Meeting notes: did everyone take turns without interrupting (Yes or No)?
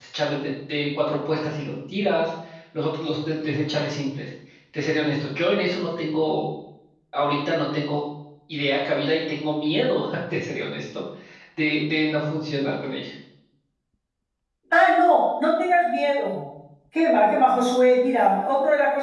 Yes